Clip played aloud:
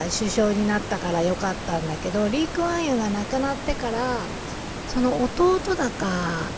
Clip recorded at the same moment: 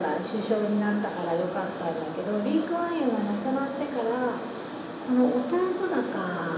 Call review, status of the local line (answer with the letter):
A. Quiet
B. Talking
A